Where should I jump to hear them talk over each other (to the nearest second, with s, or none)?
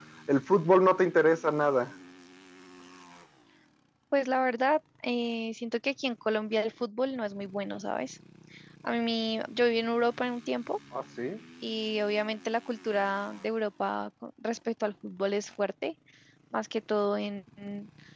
none